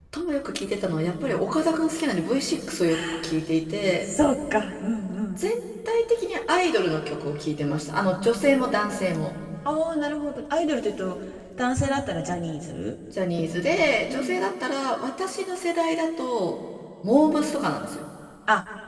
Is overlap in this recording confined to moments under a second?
Yes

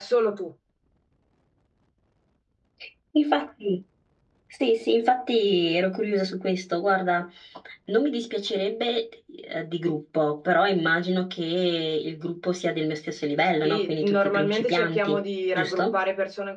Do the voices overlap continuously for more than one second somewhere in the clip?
Yes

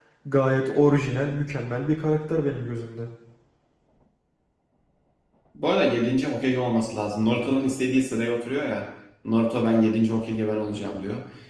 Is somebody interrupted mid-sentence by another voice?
No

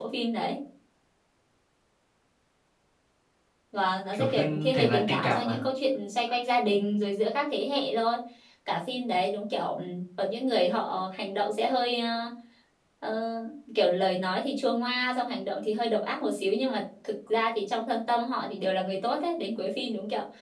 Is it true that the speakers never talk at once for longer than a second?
No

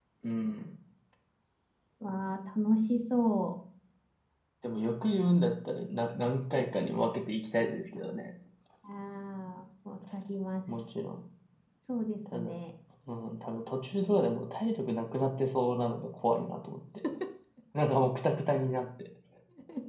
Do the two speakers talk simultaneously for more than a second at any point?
No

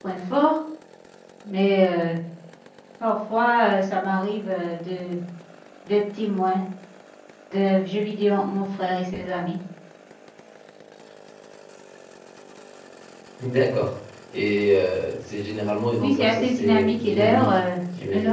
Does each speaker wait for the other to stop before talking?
No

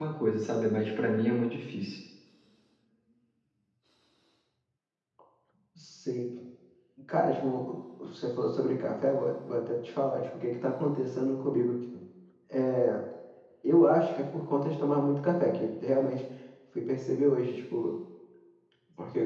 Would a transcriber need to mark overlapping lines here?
No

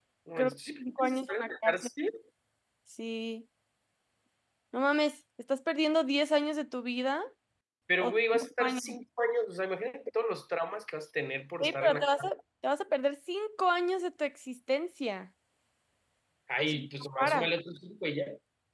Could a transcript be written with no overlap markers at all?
No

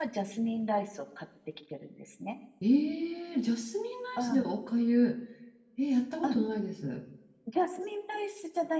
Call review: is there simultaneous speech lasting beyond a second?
No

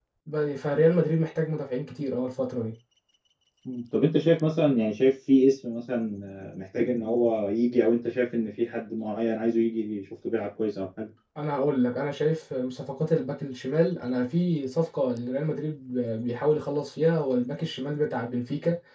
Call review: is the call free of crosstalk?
Yes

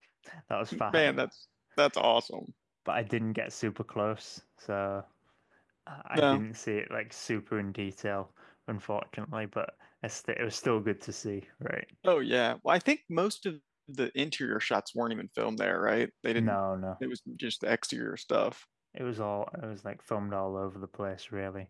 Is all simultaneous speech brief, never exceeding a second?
Yes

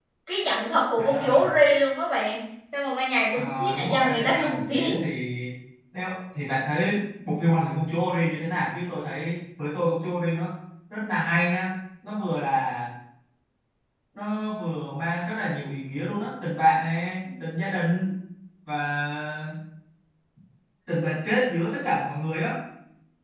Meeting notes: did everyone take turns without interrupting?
No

